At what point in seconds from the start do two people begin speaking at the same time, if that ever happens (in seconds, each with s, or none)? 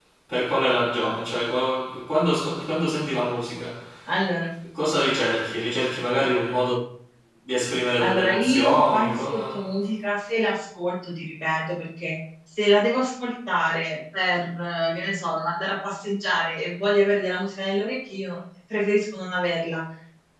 8.0 s